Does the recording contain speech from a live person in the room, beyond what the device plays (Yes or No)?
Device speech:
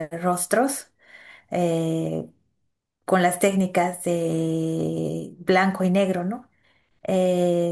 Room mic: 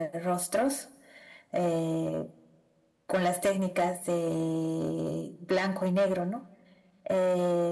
No